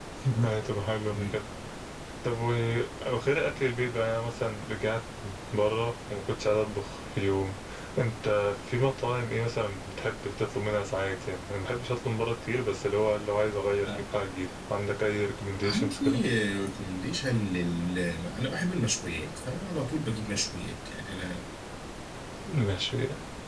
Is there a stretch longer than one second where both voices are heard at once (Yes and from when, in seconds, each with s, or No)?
No